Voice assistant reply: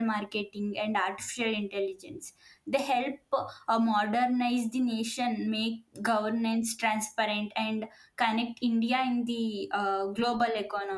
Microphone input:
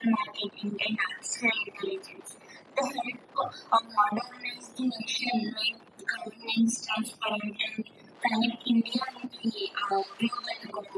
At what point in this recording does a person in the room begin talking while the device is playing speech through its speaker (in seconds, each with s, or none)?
none